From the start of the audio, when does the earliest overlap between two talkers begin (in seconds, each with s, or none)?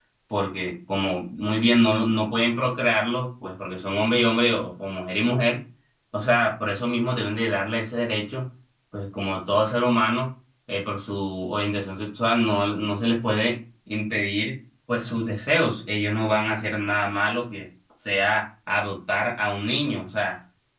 none